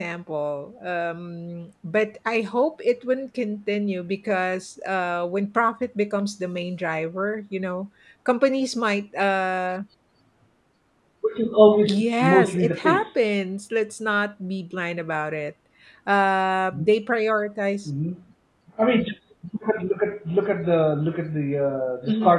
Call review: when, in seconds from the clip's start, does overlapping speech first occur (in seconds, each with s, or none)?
11.9 s